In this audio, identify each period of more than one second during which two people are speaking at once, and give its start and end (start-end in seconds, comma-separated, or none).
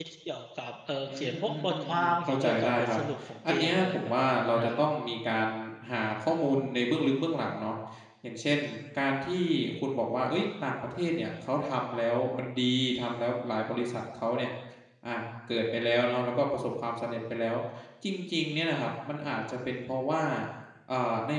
1.0-3.0, 3.5-4.8